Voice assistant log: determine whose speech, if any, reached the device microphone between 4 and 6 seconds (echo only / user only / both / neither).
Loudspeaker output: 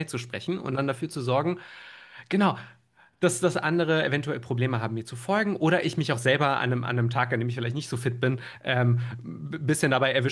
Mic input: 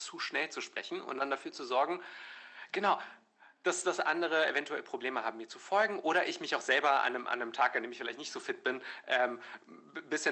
echo only